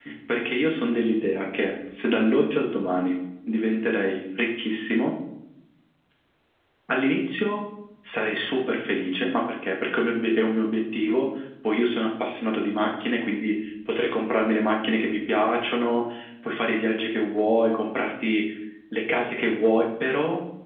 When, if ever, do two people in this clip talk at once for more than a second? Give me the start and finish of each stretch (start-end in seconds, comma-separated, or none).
none